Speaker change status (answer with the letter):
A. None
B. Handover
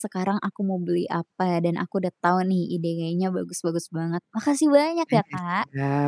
B